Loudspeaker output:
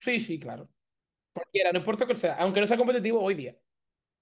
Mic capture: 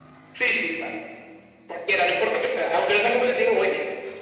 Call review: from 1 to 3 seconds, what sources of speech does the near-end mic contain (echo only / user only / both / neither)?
echo only